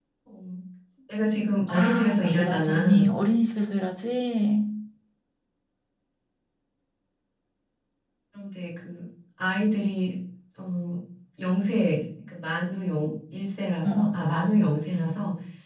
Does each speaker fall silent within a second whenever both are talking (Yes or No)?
No